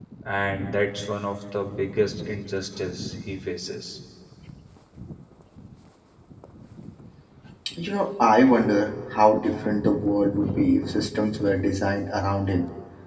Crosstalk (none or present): none